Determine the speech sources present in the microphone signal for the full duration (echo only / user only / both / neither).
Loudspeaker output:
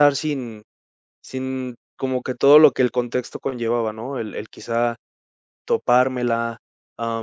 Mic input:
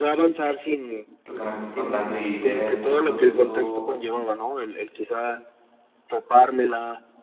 both